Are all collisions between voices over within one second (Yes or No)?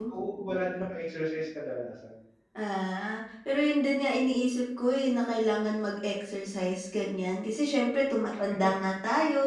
Yes